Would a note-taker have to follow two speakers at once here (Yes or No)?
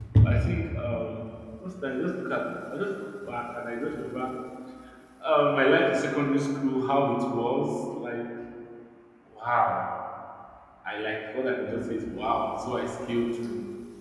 No